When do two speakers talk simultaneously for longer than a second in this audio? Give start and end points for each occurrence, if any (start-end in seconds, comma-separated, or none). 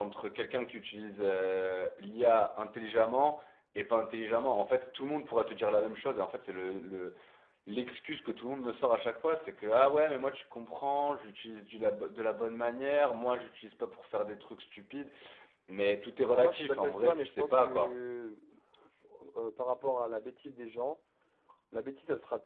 16.3-18.0